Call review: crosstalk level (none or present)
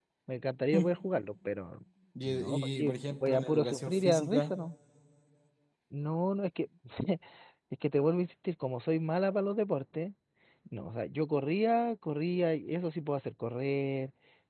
present